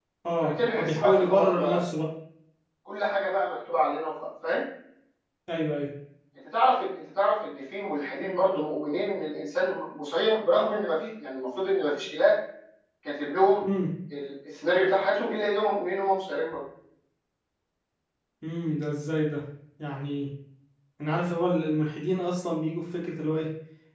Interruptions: present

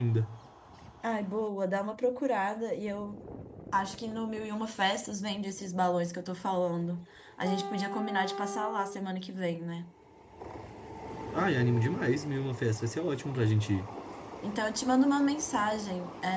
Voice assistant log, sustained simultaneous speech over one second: none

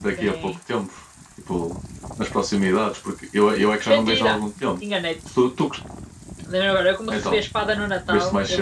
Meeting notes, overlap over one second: none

